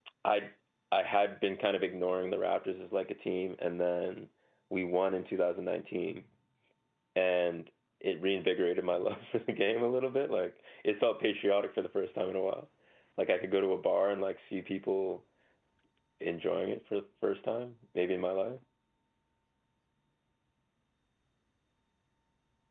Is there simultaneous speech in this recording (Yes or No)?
No